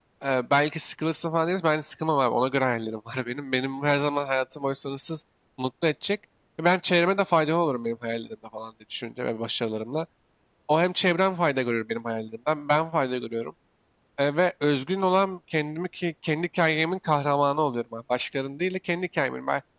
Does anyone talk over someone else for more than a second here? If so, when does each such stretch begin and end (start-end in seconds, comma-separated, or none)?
none